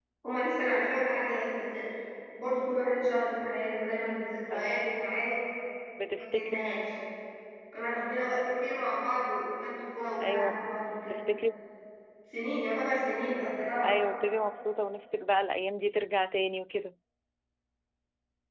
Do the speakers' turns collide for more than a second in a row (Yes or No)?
No